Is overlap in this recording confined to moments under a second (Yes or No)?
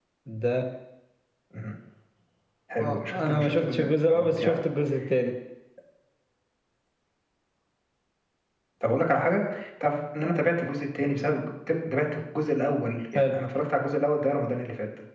No